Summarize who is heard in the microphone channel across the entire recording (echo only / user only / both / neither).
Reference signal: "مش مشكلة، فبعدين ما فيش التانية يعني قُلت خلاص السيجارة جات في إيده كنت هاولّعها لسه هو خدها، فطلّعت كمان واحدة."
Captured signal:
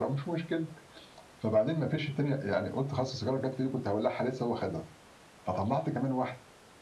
echo only